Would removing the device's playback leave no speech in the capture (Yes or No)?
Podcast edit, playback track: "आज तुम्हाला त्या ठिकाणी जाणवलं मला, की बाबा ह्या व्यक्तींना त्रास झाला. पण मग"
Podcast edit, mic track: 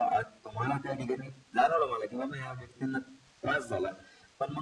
Yes